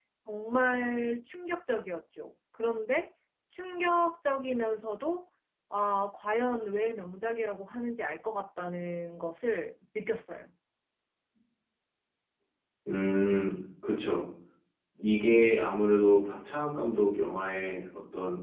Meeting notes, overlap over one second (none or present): none